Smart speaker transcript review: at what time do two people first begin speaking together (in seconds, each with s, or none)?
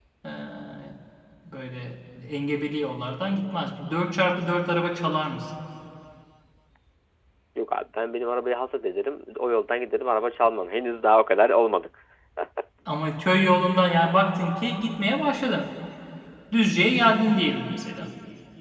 none